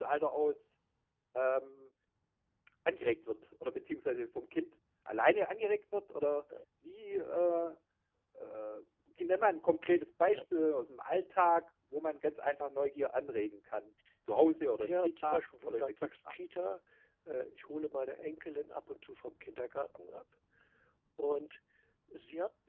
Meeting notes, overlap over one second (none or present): present